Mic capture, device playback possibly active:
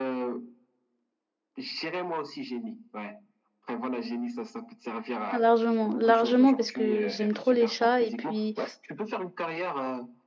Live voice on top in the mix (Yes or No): Yes